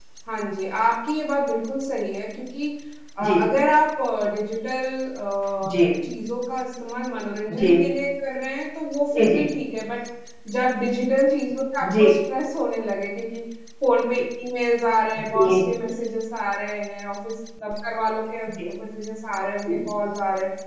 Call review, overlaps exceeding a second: none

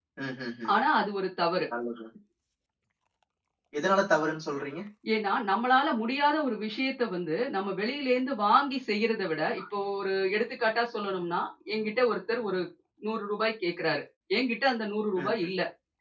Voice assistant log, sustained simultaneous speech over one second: none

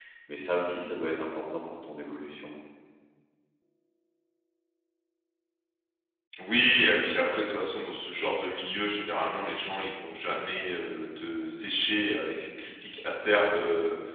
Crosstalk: none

